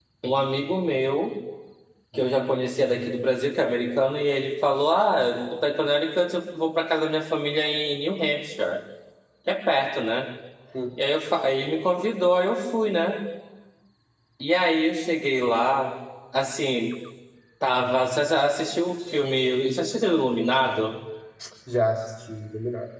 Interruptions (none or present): none